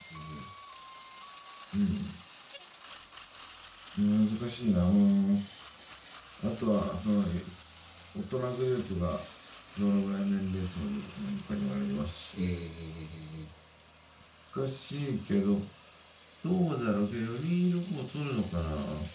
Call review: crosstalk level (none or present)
none